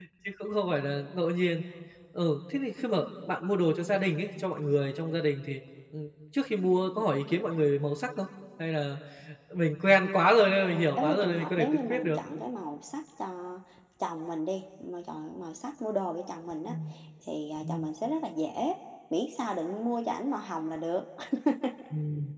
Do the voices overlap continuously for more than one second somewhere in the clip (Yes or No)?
Yes